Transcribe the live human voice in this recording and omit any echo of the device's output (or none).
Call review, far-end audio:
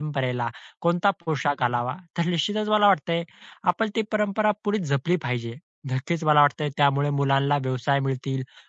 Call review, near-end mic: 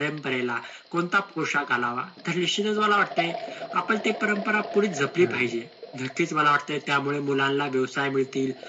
हं,